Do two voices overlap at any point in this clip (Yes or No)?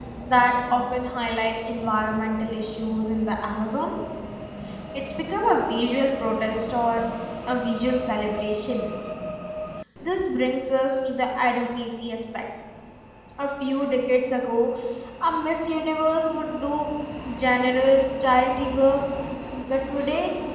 No